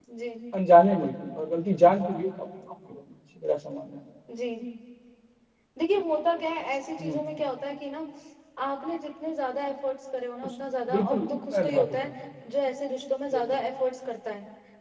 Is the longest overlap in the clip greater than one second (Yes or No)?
Yes